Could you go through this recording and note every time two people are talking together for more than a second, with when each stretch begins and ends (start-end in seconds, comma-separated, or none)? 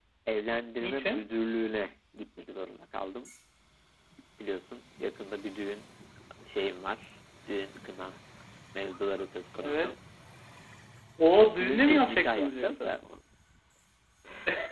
11.6-13.0